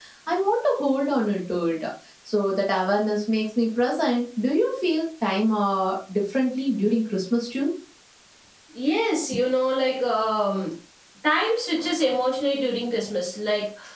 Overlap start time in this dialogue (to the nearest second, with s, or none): none